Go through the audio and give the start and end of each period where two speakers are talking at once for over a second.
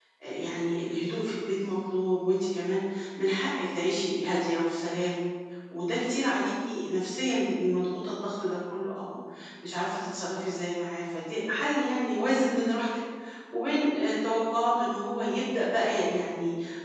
none

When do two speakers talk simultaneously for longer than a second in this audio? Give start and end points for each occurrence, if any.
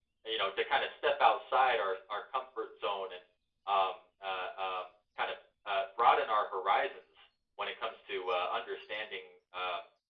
none

